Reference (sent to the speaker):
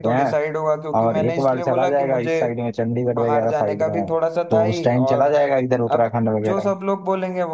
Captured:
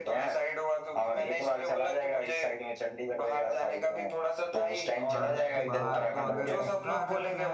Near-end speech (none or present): present